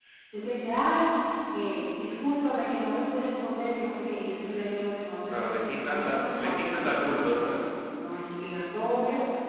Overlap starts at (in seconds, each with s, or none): 5.3 s